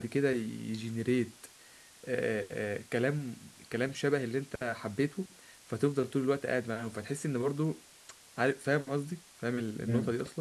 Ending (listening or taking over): taking over